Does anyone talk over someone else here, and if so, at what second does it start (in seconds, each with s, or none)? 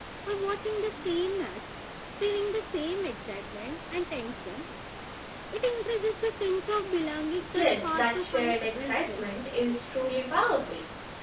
7.5 s